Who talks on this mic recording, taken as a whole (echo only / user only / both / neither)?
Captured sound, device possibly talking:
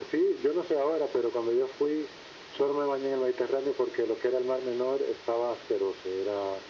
echo only